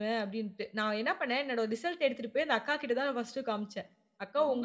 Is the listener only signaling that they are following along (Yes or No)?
Yes